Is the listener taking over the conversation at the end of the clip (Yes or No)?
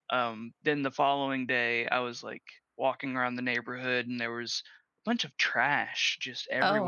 No